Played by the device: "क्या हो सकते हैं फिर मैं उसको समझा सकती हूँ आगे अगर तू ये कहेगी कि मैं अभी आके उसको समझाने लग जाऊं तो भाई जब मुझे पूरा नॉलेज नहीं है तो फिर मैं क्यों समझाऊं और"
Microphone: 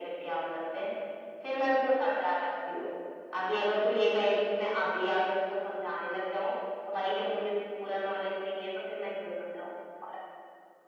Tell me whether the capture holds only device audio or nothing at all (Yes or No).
Yes